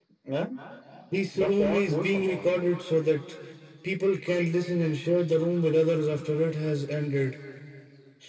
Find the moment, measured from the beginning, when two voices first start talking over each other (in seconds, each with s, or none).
1.3 s